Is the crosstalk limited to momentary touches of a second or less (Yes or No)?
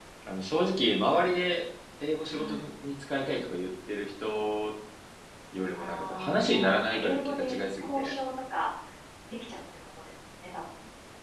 No